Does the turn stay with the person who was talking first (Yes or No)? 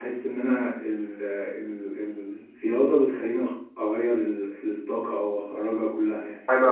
No